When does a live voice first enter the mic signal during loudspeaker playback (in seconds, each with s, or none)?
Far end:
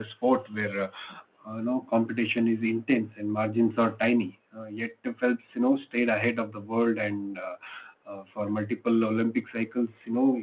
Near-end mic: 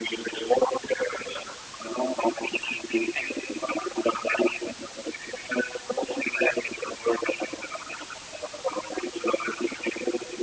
none